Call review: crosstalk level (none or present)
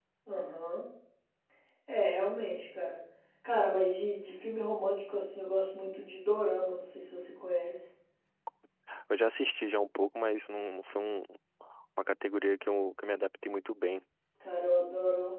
none